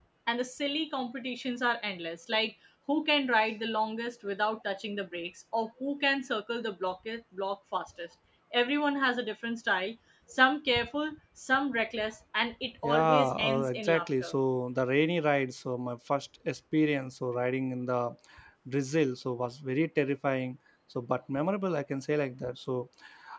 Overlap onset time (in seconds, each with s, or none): 12.8 s